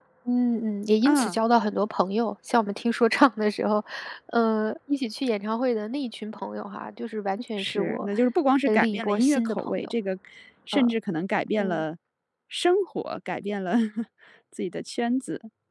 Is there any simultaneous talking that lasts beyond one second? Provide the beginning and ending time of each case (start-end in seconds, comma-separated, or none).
8.7-9.9